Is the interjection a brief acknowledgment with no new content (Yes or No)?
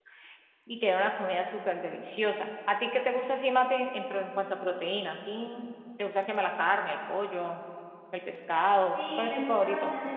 No